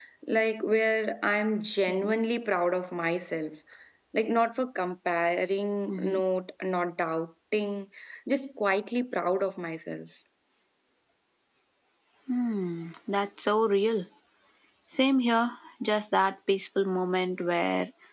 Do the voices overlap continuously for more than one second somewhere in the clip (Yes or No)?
No